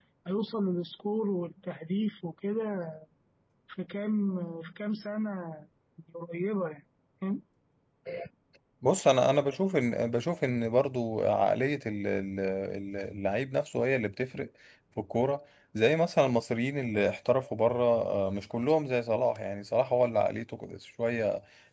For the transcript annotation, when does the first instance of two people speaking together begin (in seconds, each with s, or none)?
none